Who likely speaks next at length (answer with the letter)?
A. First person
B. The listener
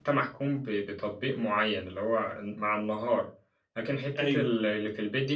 A